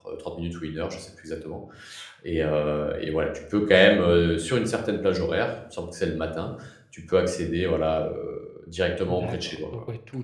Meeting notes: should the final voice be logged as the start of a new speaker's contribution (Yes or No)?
Yes